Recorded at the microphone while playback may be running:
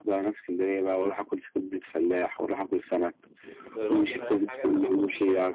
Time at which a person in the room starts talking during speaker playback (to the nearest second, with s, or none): 4 s